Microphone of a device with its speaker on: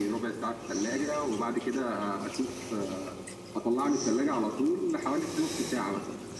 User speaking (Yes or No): No